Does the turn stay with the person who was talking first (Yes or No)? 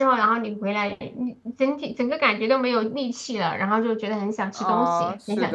No